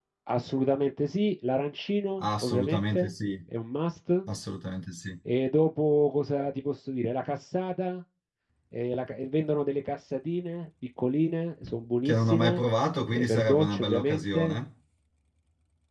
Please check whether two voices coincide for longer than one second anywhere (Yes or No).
Yes